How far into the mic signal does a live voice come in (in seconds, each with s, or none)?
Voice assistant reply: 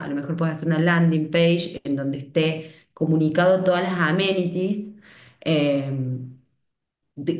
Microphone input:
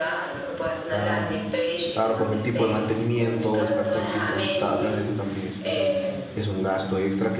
0.8 s